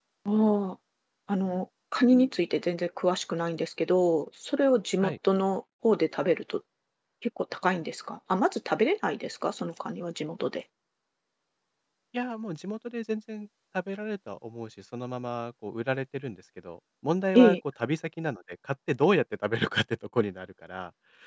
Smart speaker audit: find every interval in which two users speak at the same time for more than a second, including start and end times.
none

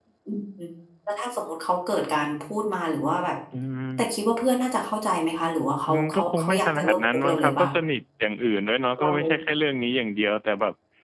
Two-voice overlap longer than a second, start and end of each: 5.9-7.7

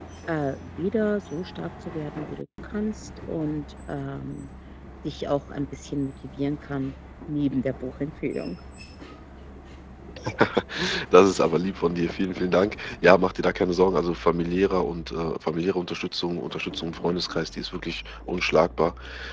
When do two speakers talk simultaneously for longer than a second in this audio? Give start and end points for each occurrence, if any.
none

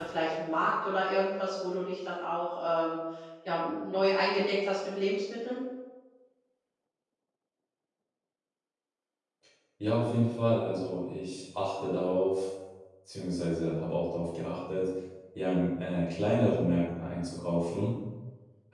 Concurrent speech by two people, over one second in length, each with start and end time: none

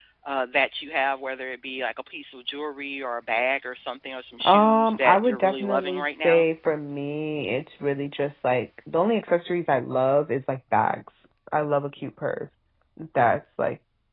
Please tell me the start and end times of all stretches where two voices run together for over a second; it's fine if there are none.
4.4-6.4

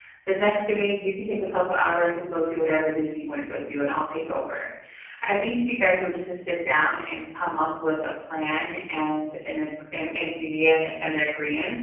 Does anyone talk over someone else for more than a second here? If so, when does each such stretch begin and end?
none

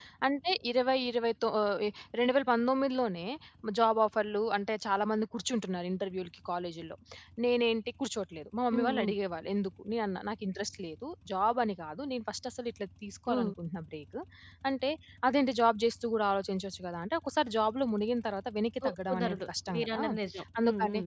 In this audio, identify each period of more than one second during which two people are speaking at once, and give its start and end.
18.8-20.0

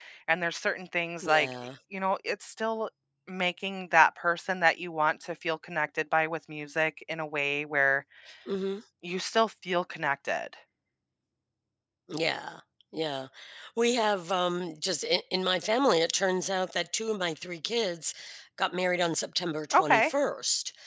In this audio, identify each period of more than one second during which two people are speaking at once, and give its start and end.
none

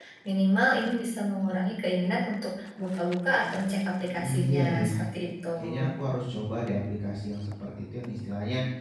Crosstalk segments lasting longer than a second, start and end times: 3.4-4.9

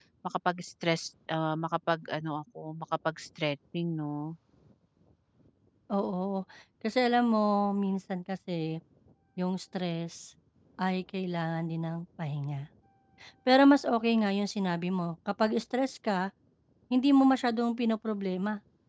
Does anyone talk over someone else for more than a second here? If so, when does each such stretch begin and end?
none

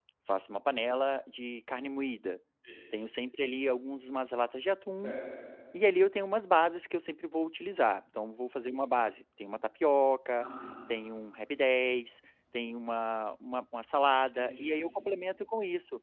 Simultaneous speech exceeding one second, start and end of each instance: none

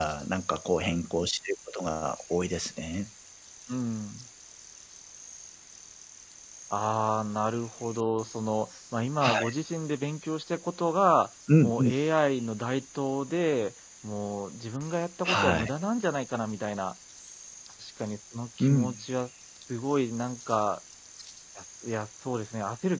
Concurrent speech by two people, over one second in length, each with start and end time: none

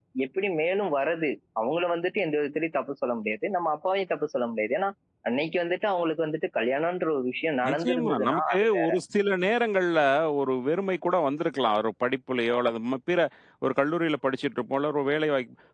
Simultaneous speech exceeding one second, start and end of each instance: 7.7-8.9

